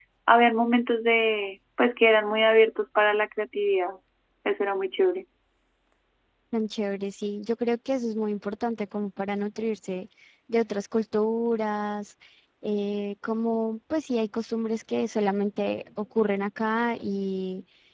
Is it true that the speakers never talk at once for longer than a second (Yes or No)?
Yes